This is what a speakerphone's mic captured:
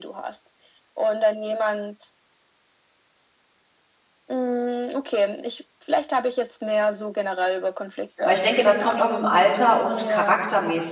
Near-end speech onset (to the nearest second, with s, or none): 8 s